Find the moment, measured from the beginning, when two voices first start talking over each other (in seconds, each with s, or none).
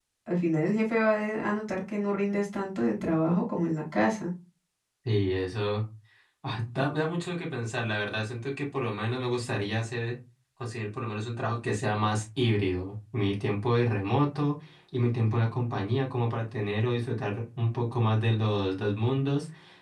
none